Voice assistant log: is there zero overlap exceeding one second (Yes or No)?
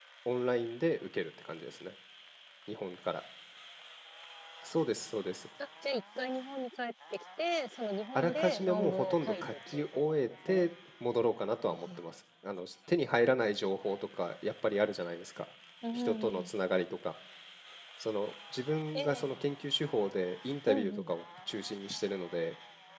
No